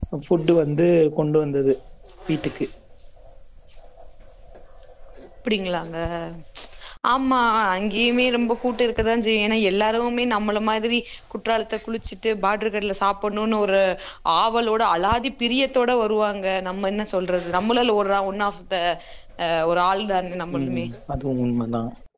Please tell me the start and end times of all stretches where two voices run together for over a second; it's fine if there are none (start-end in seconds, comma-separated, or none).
none